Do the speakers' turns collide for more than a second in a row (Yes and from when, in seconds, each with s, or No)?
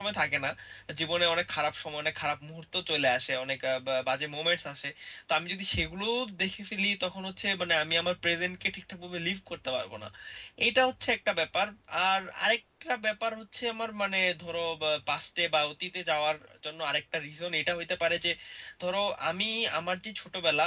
No